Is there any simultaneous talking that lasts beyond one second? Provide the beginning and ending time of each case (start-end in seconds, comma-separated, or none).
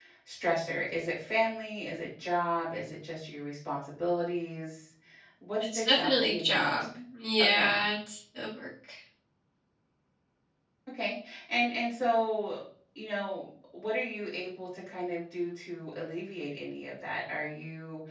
5.6-6.8